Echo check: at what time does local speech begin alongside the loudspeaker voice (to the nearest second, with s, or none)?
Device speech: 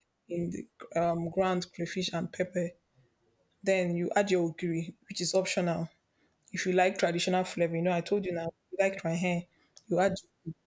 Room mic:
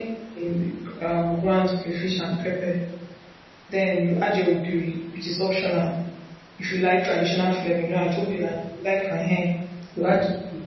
none